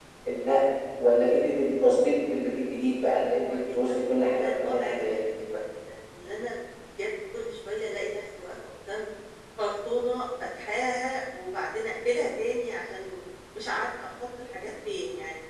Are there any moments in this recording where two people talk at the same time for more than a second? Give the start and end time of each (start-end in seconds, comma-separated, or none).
3.0-5.2